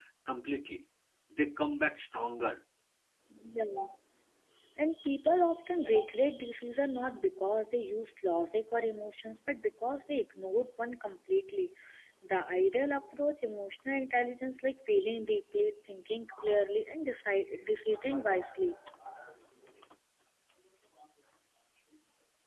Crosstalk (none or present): none